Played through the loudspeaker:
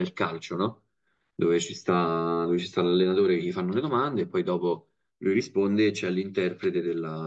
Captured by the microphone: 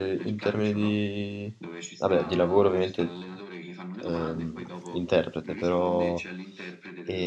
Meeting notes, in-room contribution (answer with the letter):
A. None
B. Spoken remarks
B